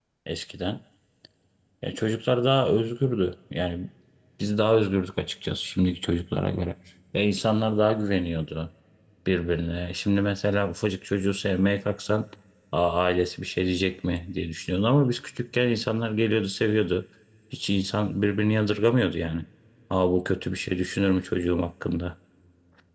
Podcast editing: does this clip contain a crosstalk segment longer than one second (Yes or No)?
No